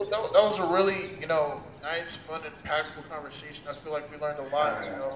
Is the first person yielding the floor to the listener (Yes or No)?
No